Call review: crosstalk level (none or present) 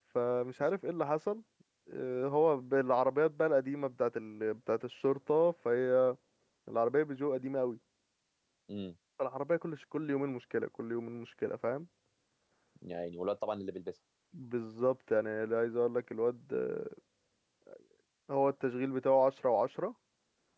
none